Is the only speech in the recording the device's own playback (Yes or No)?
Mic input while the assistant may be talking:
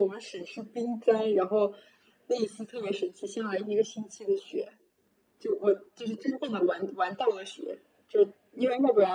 Yes